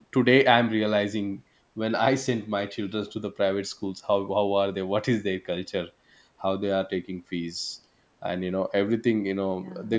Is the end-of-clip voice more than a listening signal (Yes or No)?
No